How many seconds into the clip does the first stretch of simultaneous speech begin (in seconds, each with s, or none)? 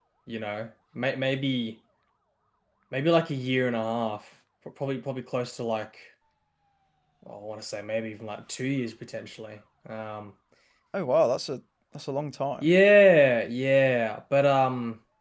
none